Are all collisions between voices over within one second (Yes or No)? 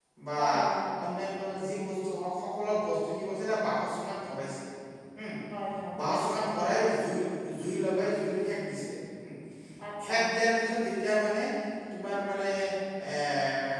Yes